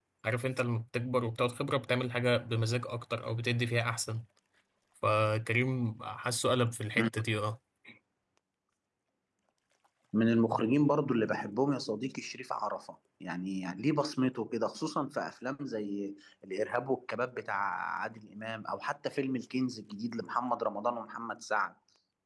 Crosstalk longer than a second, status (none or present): none